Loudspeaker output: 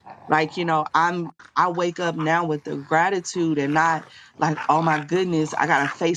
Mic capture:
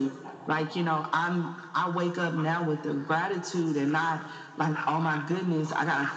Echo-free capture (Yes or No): No